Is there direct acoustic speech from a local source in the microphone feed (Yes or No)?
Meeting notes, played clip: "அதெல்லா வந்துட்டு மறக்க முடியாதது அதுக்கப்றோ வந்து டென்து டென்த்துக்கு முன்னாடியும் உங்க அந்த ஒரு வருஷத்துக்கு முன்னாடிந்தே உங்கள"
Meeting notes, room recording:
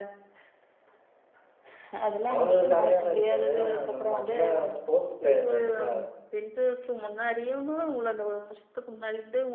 Yes